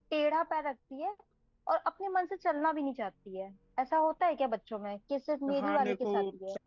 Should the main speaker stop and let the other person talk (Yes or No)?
Yes